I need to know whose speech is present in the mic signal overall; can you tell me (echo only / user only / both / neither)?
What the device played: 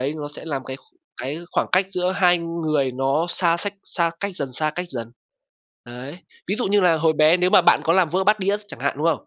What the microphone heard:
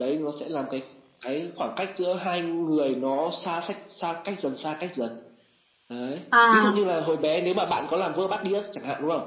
both